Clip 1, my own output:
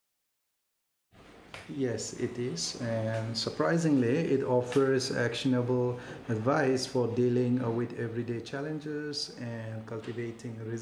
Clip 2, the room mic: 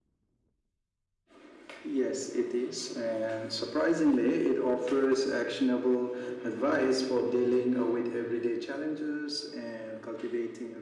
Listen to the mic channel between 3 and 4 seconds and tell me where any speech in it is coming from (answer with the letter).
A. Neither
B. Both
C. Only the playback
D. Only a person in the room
C